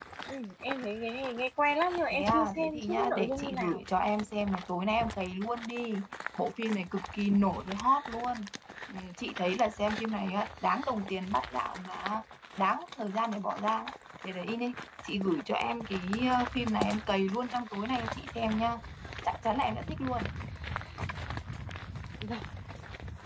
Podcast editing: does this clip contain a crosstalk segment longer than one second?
Yes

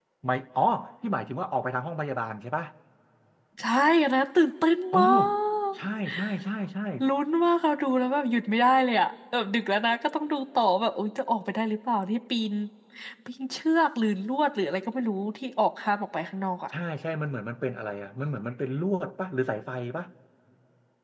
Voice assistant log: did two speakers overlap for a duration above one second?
No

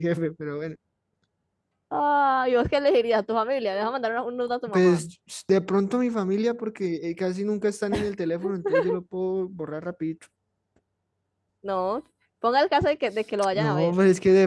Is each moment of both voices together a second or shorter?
Yes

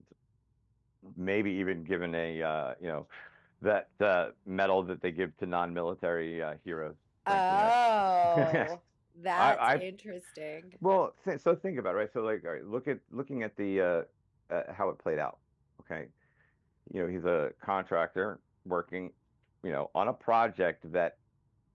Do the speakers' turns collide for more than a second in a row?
No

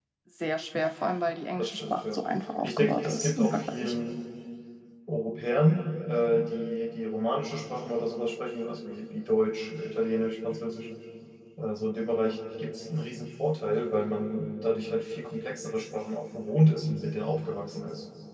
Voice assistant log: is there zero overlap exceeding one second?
No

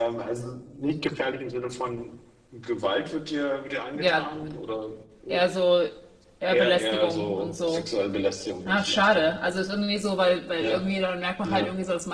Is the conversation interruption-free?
No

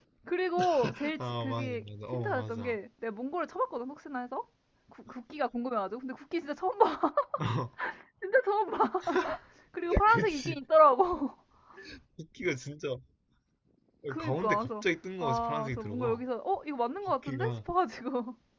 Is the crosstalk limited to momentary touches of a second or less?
No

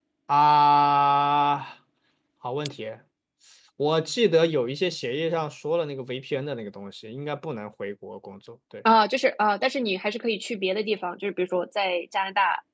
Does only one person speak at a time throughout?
Yes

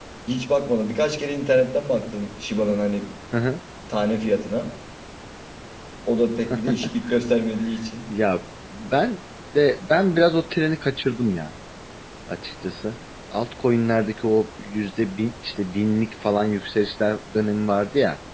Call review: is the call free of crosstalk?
Yes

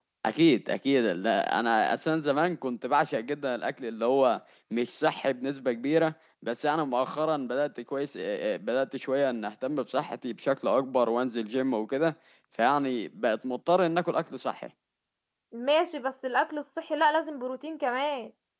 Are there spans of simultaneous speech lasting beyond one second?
No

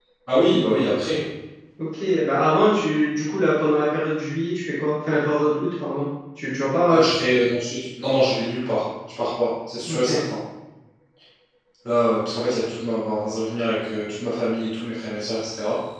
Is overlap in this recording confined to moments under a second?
Yes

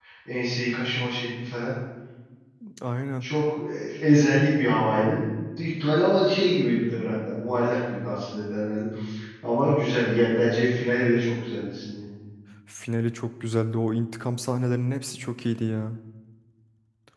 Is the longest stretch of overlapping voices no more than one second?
Yes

